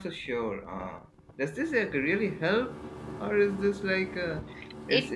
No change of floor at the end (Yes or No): Yes